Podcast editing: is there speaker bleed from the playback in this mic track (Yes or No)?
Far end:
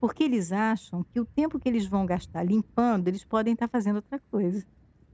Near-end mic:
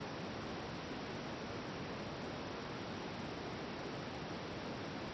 No